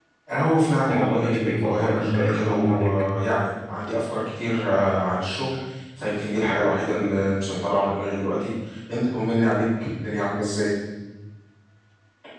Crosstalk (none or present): present